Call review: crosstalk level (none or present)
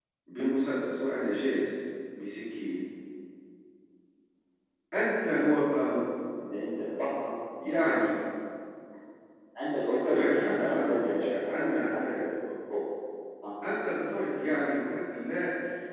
present